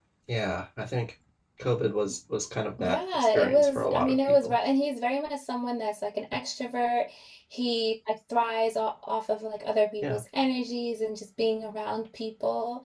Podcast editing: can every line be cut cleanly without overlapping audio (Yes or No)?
No